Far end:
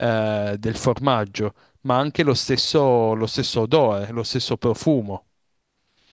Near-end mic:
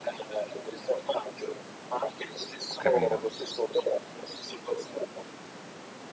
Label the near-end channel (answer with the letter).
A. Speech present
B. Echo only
A